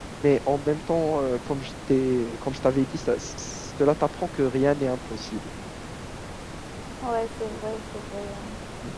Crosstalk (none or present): none